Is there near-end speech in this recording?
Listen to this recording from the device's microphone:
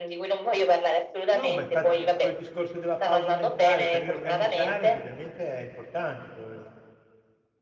Yes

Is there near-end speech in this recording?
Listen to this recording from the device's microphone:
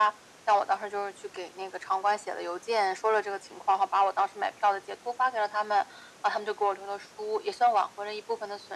No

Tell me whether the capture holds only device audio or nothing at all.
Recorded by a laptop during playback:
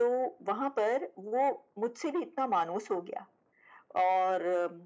Yes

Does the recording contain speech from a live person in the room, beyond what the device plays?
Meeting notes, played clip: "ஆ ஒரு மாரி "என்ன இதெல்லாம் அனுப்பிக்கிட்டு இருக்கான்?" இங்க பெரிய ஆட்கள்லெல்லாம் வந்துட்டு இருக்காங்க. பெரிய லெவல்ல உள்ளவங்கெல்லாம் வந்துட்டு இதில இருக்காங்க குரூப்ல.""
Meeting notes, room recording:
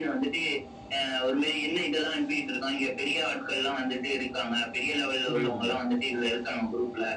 Yes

